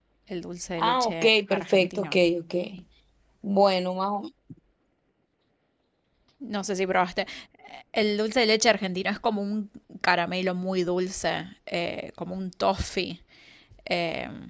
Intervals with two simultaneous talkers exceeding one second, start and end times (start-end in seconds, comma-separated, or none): 0.8-2.2